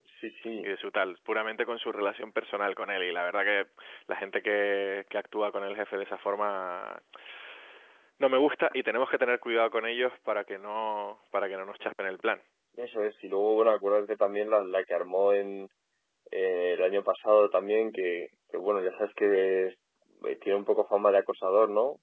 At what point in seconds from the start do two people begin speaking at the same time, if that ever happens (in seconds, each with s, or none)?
none